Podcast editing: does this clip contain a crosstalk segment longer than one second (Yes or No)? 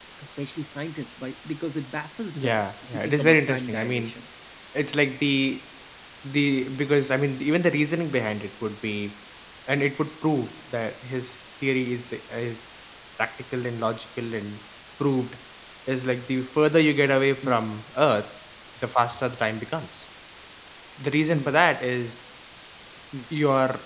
Yes